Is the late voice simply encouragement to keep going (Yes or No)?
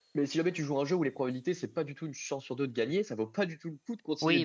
No